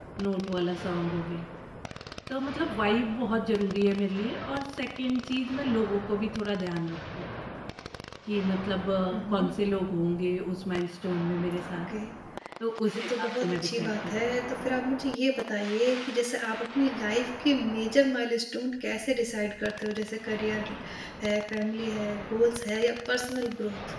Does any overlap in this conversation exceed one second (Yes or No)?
Yes